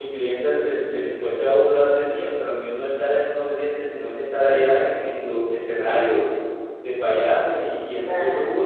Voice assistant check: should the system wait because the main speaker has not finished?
No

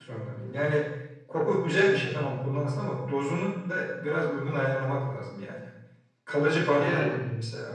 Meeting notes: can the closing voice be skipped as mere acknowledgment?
Yes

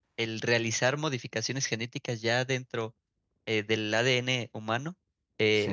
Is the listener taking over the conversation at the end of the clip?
No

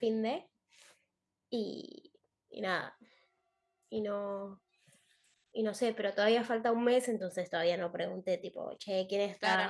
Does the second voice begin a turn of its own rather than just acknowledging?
Yes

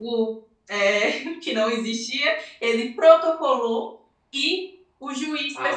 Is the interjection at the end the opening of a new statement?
No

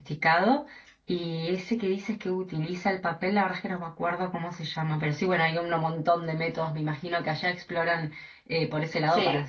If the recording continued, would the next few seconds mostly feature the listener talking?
No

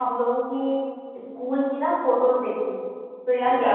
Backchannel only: Yes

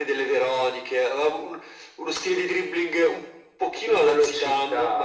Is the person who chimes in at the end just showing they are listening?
No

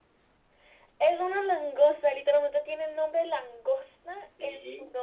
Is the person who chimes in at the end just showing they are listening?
No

